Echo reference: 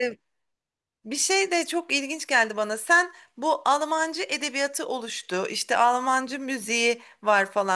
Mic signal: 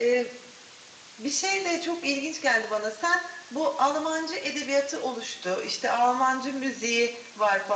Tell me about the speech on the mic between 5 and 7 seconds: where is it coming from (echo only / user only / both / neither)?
echo only